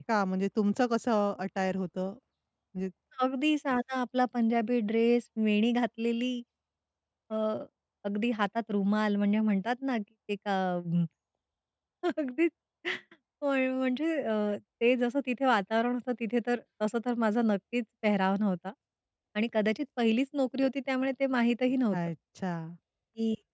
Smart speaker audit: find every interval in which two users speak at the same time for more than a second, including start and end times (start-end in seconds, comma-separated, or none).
none